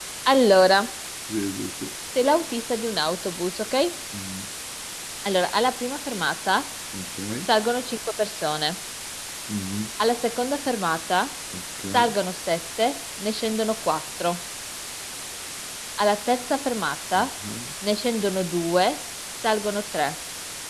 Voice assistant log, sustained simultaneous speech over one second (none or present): none